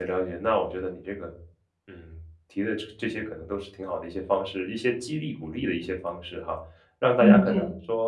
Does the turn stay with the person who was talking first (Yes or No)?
Yes